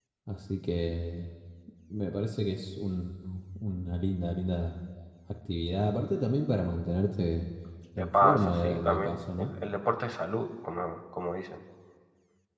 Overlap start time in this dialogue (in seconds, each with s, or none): 8.0 s